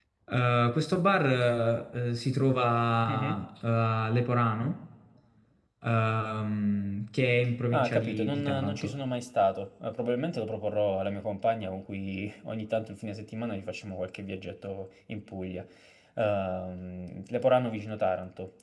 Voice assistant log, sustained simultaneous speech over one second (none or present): present